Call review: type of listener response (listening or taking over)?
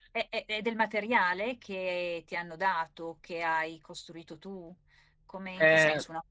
listening